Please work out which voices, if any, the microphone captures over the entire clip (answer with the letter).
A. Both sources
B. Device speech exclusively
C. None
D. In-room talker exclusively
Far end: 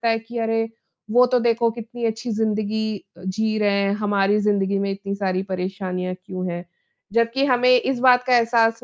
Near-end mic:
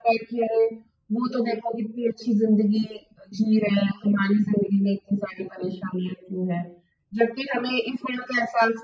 B